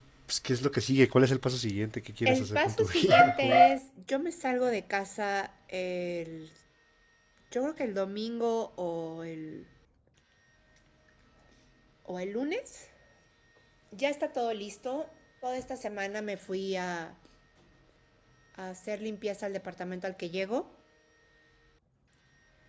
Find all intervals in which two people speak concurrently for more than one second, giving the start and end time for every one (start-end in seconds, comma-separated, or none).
2.2-3.6